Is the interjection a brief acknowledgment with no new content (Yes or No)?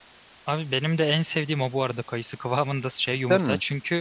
Yes